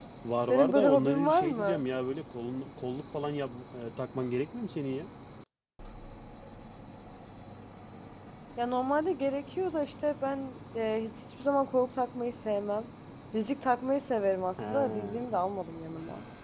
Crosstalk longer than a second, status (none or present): present